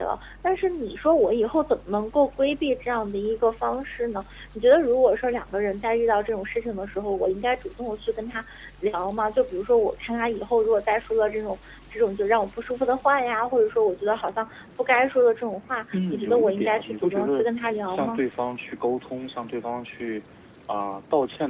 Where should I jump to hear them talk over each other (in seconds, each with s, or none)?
15.9 s